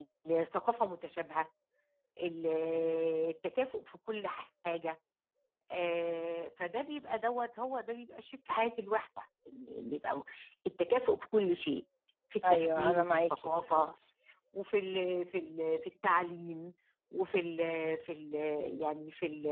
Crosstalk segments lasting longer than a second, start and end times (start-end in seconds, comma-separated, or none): 12.4-13.9